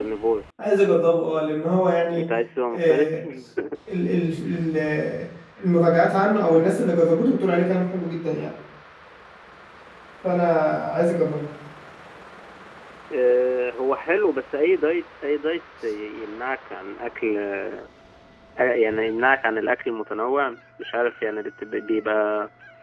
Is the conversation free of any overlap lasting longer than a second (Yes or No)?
Yes